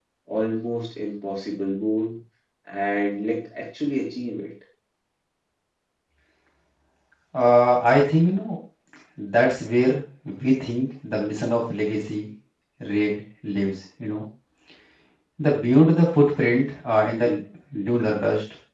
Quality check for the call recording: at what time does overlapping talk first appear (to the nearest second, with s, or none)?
none